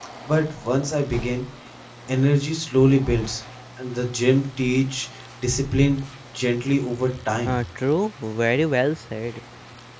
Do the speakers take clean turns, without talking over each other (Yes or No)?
Yes